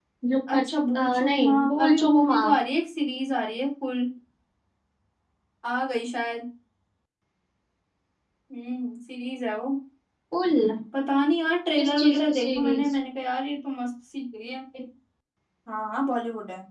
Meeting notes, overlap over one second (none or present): present